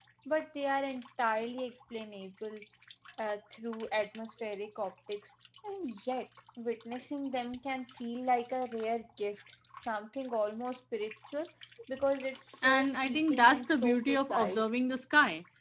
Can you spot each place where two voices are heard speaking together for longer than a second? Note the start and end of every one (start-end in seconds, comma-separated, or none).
12.6-14.7